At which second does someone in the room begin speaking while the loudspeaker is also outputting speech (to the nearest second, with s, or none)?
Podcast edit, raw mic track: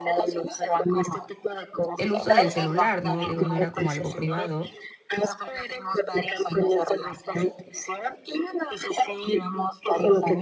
2 s